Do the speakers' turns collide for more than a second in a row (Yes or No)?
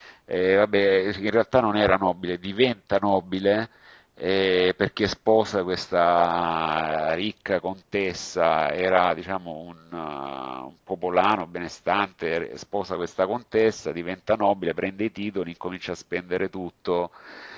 No